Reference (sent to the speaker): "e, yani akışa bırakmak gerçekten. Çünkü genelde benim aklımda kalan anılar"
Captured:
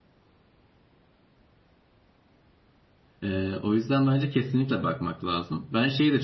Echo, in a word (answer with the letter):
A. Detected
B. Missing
B